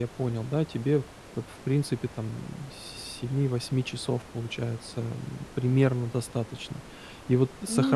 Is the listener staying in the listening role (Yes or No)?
Yes